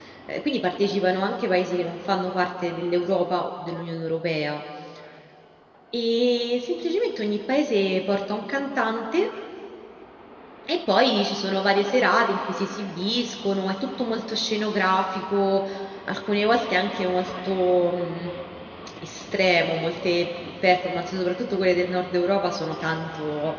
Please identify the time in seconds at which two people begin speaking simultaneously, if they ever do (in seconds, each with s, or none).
none